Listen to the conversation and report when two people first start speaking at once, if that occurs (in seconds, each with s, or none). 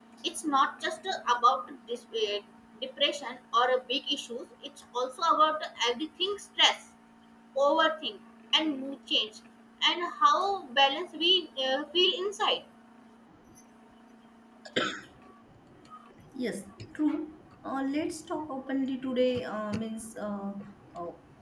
none